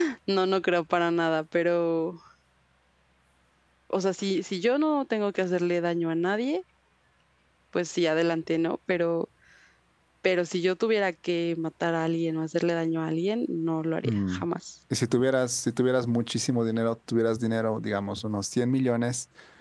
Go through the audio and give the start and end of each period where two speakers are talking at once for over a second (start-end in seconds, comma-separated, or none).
none